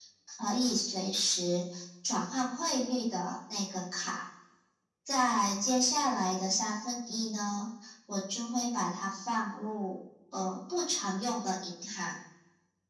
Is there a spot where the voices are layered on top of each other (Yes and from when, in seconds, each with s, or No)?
No